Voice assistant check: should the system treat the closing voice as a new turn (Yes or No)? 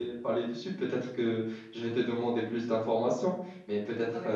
No